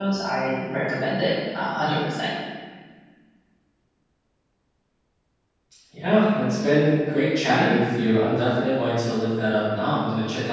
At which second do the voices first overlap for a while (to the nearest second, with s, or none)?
none